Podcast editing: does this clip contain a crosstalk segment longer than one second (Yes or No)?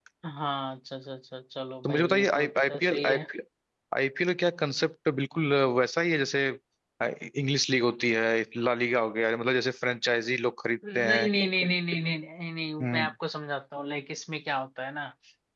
Yes